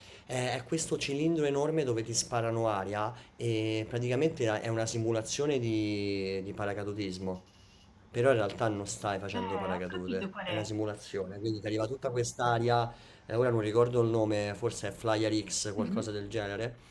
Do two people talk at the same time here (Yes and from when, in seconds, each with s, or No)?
Yes, from 9.3 s